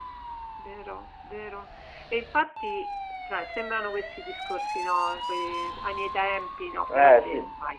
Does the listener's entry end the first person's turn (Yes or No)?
No